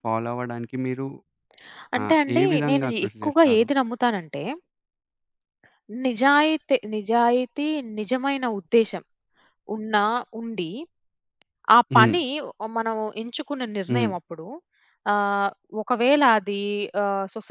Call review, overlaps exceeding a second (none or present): present